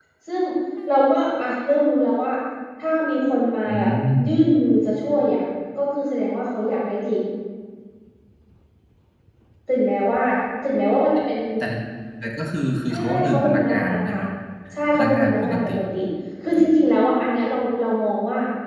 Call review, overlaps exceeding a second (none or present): present